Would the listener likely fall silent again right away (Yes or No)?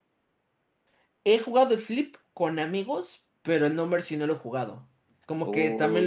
No